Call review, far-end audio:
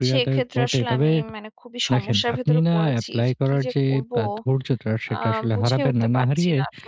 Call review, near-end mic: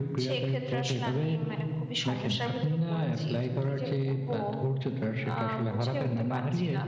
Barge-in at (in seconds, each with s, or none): none